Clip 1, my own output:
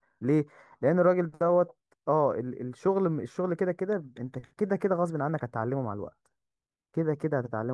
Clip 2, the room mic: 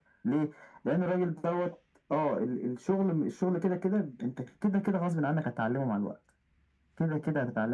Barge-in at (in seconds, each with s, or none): none